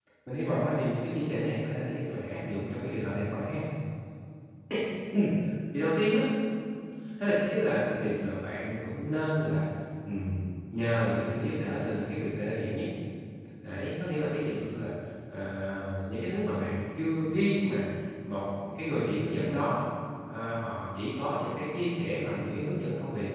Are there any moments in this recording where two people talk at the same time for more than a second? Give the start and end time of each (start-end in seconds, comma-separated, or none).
none